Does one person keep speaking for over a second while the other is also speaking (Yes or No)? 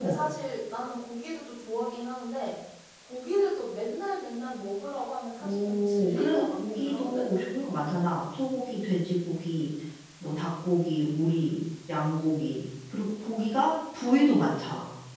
Yes